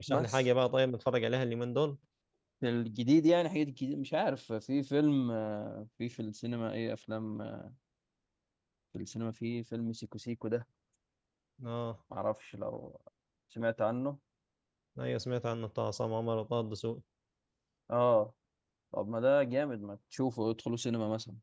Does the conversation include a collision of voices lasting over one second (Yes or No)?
No